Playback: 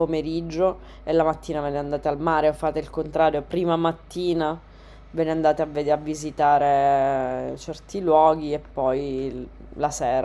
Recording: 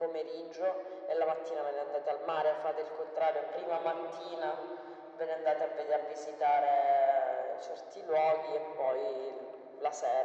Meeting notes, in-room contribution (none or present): none